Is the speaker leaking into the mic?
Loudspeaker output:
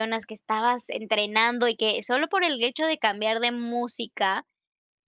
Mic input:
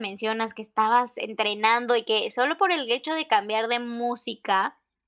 Yes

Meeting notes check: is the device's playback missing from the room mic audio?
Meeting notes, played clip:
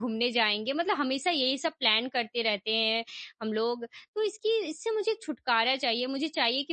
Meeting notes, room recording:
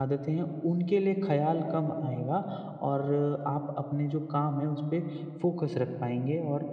Yes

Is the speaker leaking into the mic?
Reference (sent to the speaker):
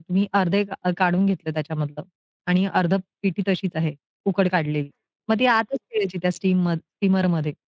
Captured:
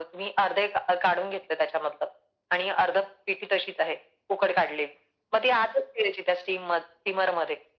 Yes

